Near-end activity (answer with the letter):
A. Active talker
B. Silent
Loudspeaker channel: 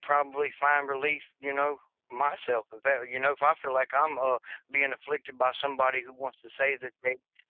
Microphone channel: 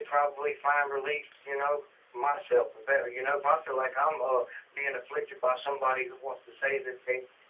B